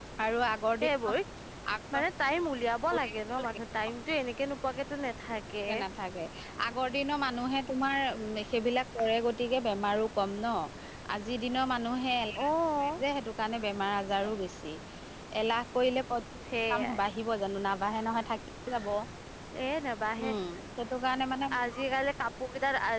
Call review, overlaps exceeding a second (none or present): none